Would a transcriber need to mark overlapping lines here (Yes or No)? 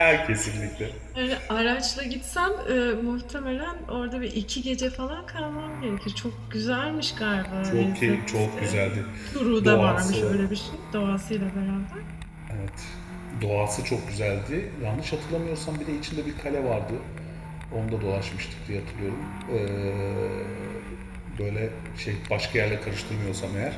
Yes